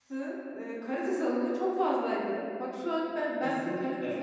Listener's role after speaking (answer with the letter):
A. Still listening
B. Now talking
B